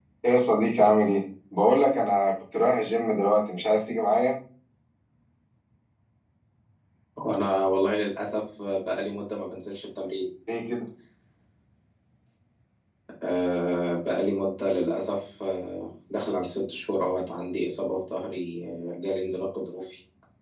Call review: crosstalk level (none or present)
none